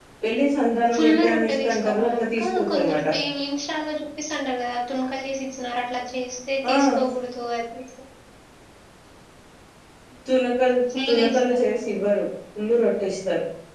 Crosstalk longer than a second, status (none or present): present